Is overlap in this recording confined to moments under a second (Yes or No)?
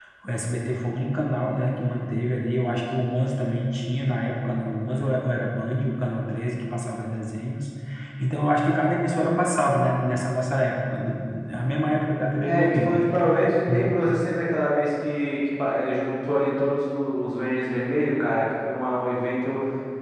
Yes